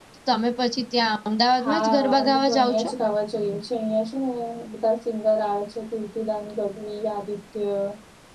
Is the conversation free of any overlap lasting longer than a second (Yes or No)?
No